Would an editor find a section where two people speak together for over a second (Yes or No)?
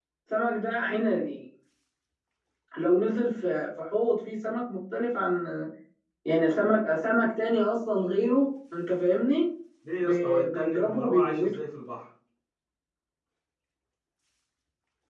Yes